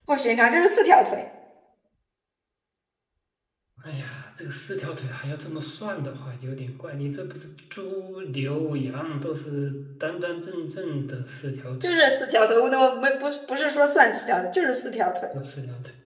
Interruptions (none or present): none